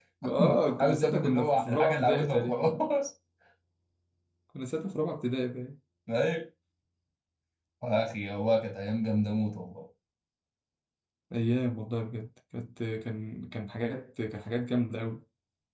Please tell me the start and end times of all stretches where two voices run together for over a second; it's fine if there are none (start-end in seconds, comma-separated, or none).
0.8-2.6